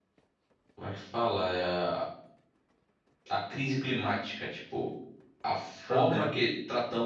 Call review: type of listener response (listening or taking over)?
listening